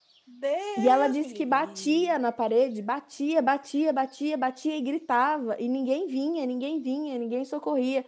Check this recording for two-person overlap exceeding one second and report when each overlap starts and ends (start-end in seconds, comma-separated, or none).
0.8-2.1